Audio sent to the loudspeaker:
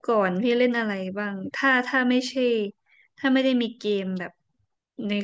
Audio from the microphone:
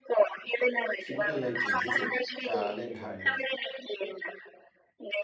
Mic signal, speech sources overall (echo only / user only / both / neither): both